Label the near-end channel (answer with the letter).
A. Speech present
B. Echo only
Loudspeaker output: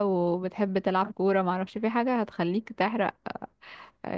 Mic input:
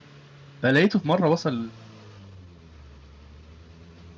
A